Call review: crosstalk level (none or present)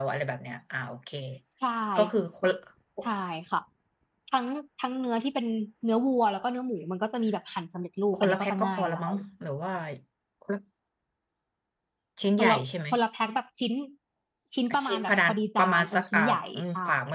present